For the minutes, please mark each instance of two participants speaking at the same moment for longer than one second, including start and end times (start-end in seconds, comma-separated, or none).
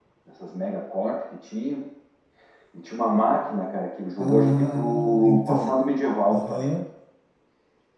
4.2-5.8